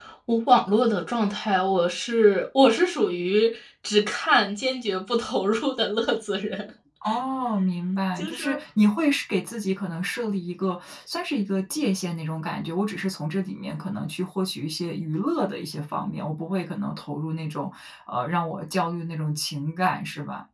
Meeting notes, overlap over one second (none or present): none